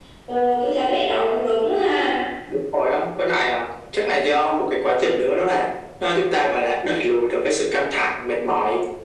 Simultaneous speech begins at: none

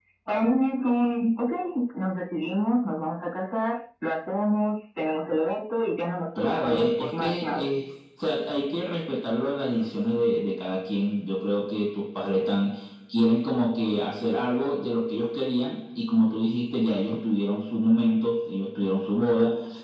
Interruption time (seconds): 6.4 s

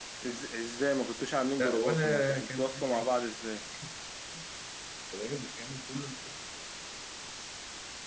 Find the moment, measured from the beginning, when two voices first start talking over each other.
1.6 s

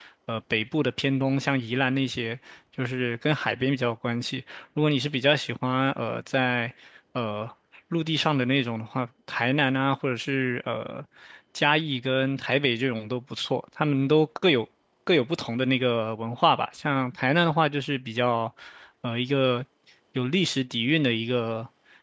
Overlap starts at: none

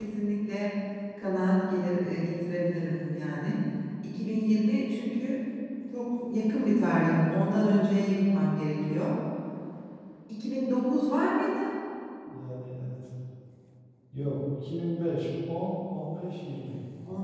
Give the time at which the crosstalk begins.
none

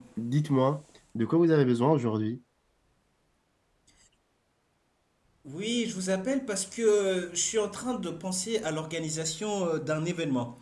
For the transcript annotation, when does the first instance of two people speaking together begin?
none

